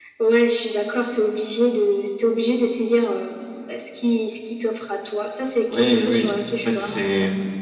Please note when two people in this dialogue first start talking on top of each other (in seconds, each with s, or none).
5.7 s